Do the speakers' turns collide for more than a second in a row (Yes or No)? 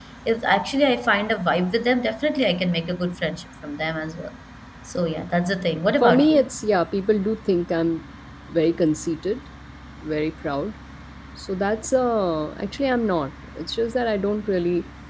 No